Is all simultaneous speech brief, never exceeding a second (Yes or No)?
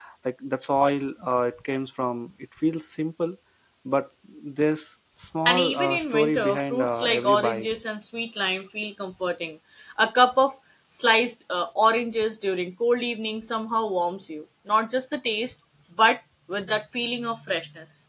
No